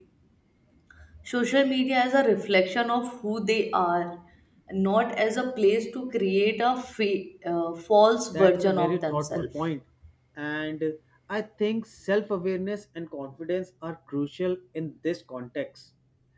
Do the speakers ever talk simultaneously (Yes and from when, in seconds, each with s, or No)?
Yes, from 8.3 s